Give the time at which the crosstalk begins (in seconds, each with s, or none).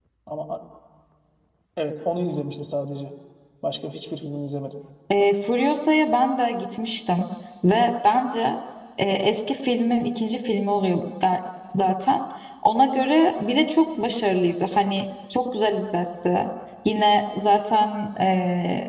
none